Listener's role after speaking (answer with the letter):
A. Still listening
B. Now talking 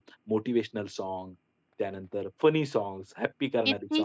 B